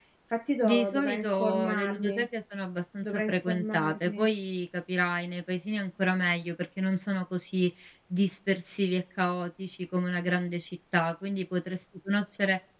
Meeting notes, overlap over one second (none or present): present